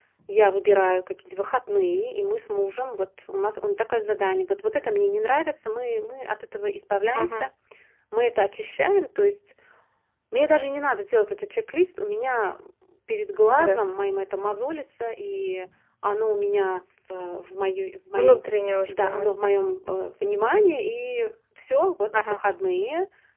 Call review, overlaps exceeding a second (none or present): none